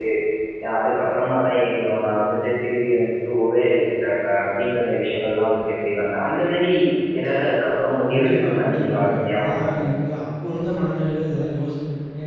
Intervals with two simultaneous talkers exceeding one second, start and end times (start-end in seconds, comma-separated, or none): 8.1-9.8